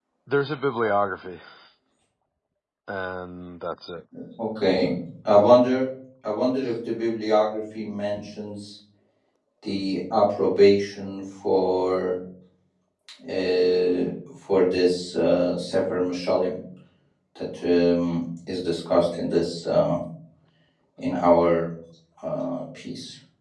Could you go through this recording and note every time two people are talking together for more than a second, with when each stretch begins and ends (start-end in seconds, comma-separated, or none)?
none